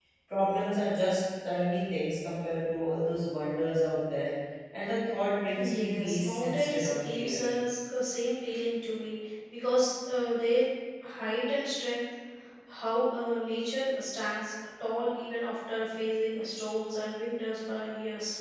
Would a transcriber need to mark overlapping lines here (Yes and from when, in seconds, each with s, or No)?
Yes, from 5.5 s